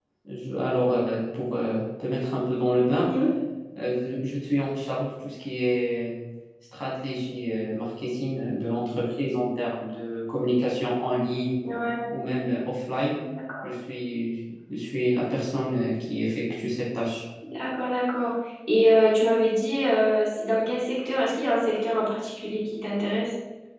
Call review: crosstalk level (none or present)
none